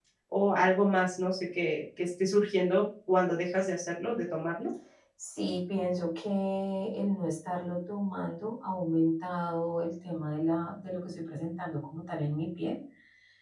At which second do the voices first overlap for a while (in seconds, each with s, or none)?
none